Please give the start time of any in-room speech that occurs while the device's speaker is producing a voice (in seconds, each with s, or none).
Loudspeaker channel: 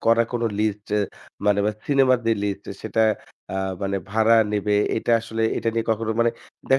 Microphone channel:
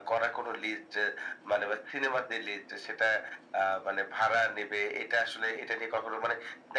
none